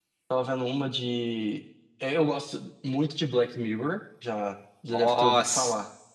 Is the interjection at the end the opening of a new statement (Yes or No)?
Yes